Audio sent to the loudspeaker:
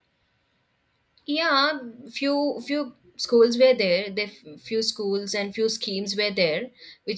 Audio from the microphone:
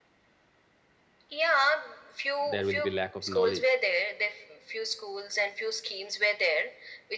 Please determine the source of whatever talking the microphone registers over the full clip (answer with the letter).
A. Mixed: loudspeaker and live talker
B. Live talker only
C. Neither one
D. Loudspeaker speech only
A